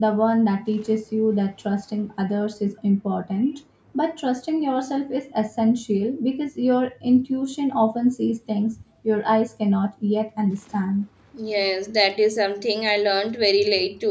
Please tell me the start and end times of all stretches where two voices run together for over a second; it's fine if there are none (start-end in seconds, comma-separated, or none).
none